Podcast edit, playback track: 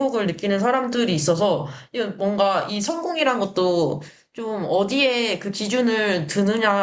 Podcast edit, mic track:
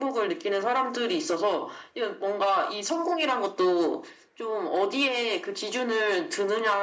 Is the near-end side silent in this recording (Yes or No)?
Yes